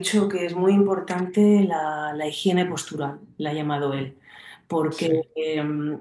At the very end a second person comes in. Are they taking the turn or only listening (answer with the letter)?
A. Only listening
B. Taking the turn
A